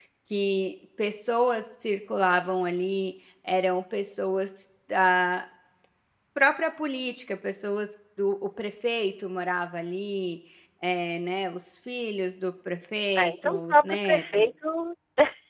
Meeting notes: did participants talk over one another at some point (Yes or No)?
Yes